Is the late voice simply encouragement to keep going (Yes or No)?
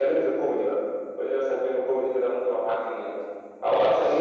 Yes